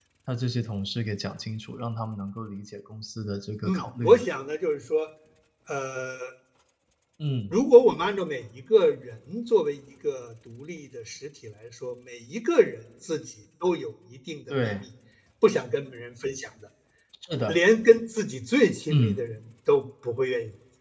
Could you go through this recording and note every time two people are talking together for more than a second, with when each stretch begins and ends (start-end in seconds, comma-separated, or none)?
none